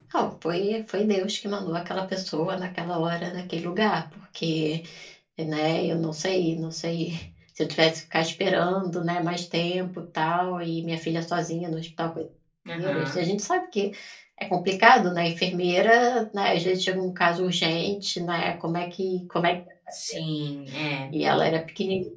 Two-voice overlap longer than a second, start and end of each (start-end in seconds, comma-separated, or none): none